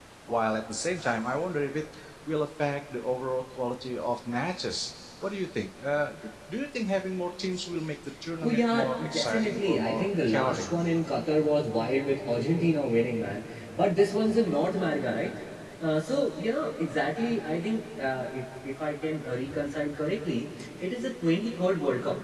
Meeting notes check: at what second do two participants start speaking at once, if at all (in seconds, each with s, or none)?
8.4 s